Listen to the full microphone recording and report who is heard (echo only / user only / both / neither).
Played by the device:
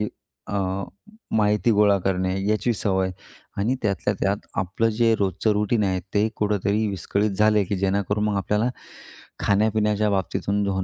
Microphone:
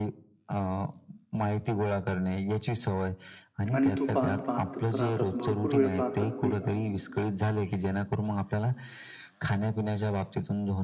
both